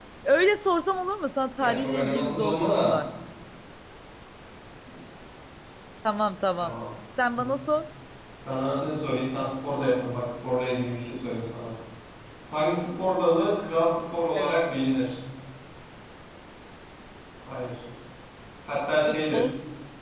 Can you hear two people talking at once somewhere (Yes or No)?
Yes